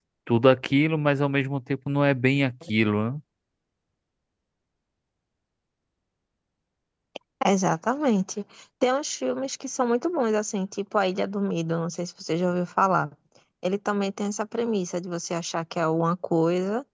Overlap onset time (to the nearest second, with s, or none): none